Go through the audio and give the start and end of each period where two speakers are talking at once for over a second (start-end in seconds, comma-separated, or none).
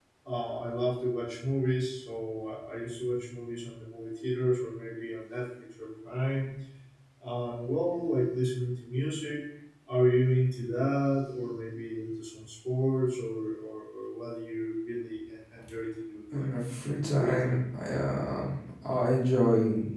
16.3-17.6